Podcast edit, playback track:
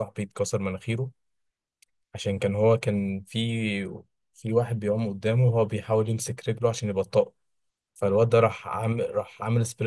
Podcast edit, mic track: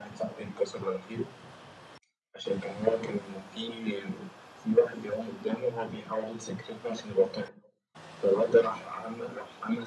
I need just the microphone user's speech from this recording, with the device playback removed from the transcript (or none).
none